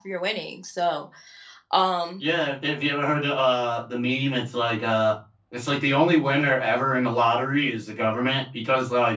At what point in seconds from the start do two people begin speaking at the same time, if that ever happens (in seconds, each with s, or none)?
none